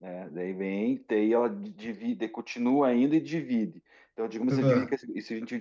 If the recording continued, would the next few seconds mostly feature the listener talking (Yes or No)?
No